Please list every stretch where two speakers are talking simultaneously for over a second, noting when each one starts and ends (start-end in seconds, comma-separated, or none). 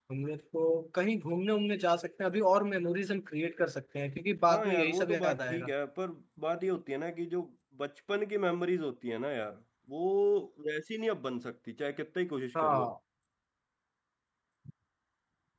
4.5-5.7